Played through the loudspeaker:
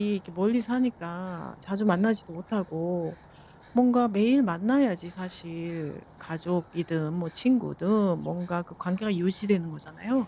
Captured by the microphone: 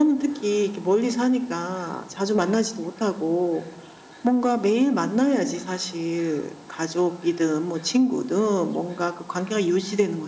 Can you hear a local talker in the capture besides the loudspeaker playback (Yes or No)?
No